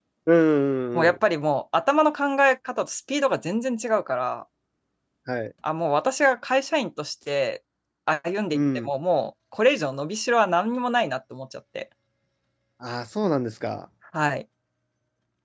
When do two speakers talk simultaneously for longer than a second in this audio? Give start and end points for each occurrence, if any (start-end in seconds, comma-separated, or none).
none